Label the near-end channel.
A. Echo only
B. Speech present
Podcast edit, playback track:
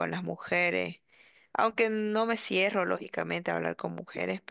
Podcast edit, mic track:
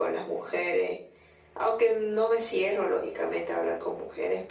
A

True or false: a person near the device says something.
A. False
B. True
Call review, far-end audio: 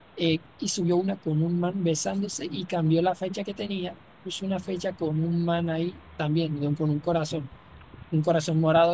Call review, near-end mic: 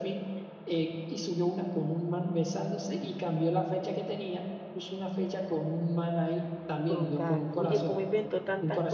B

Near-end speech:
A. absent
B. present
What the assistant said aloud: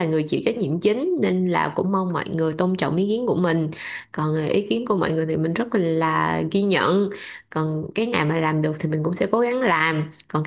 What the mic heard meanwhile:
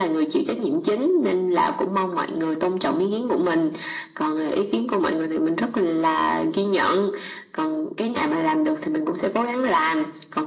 A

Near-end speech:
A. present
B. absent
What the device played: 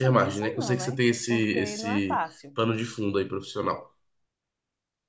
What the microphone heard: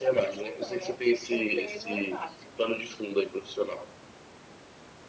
B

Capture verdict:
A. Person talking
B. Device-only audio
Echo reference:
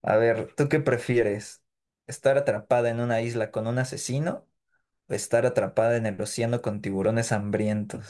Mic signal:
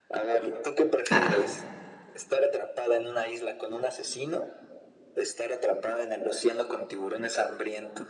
A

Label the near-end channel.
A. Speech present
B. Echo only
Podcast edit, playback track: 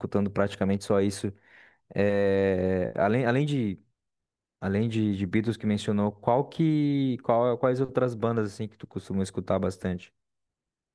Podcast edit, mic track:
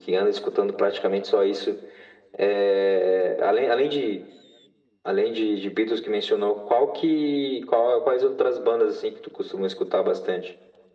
B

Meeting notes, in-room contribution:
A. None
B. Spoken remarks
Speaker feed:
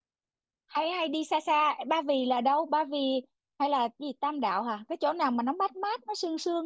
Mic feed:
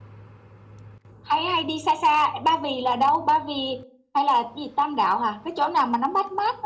A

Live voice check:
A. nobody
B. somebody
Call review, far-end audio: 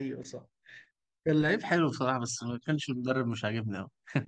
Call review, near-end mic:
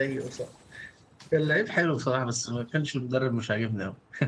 A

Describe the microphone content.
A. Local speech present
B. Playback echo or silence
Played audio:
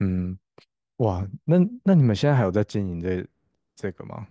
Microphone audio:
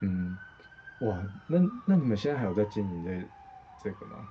B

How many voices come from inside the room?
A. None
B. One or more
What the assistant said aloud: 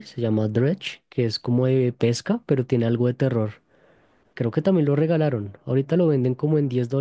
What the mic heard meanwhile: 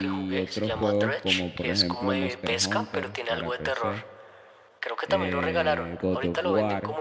B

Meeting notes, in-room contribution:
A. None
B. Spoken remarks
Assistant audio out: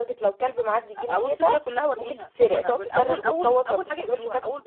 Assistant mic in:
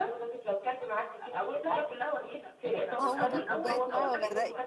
B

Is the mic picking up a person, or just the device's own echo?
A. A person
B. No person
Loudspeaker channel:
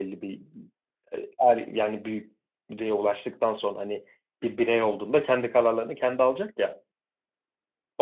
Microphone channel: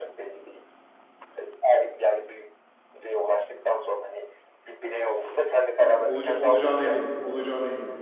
A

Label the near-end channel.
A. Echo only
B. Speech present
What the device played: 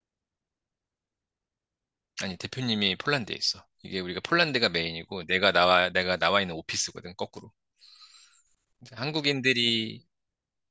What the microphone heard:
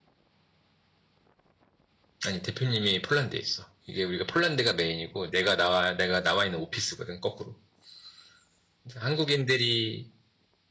A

